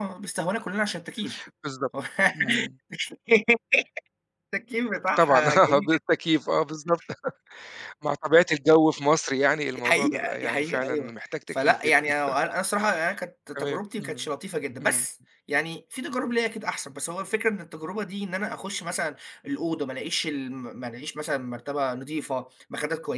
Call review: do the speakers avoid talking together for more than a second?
No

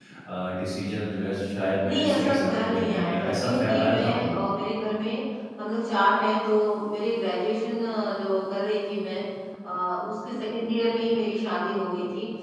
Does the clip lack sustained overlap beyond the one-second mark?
No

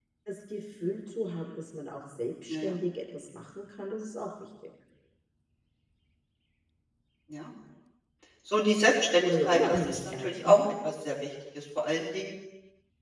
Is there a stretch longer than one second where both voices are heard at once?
Yes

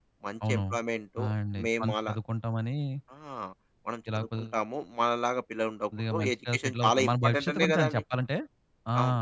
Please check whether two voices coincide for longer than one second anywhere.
Yes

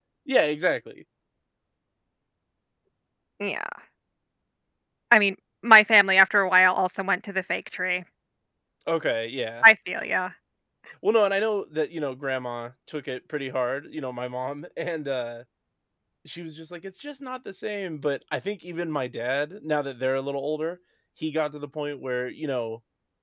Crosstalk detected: No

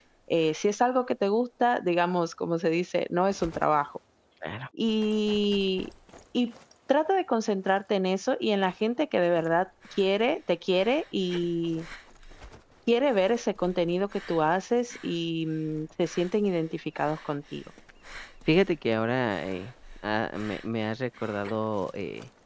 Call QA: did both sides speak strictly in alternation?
Yes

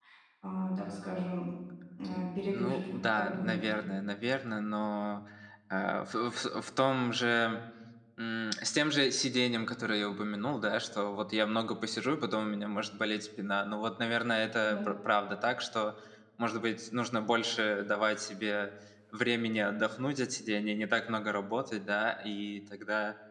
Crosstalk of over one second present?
Yes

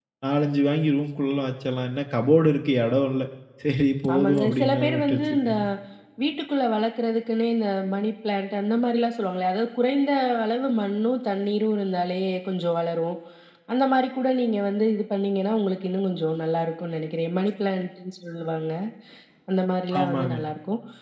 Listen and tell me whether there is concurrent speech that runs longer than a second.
Yes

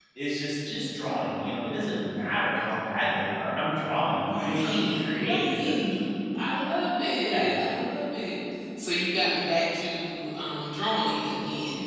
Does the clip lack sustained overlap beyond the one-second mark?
No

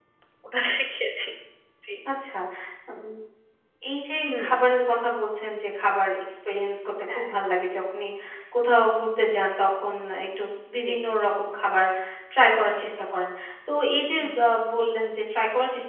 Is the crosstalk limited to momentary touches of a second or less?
Yes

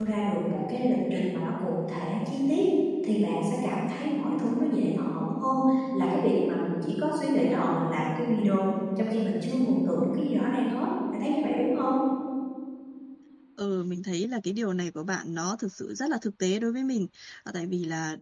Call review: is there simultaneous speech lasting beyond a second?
No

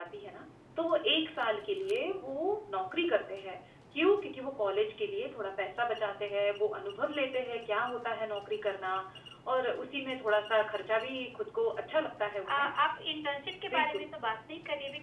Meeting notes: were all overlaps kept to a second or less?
Yes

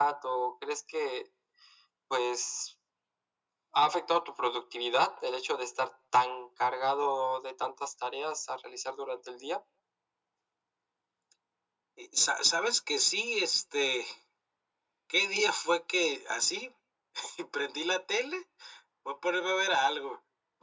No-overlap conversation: Yes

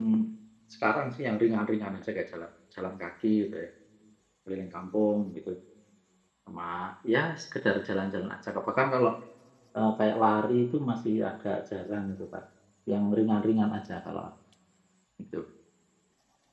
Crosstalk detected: No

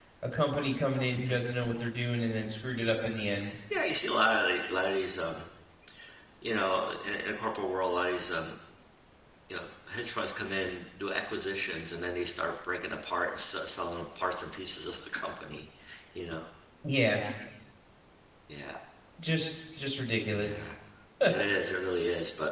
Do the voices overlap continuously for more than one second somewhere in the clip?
No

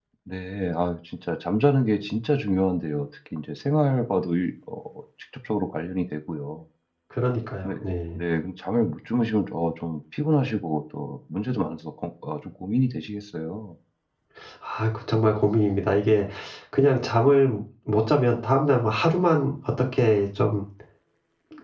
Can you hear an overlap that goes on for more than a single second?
No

